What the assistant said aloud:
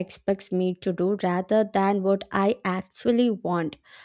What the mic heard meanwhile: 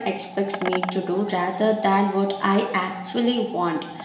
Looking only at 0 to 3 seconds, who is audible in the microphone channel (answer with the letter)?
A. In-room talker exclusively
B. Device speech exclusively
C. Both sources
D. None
B